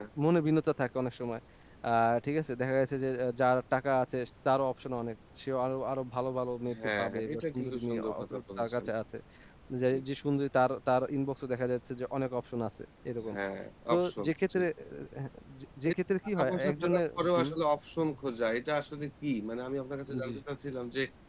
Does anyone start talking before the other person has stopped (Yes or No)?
Yes